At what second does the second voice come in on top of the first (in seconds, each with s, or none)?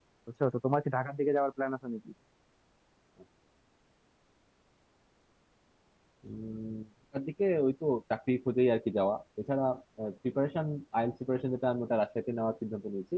none